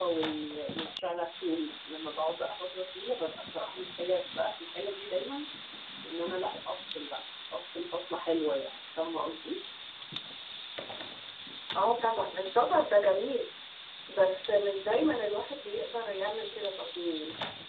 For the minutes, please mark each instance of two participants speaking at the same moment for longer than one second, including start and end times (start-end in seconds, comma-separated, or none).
none